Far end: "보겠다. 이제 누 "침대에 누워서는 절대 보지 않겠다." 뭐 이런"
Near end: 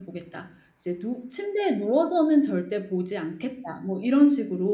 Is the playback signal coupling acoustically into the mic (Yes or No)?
Yes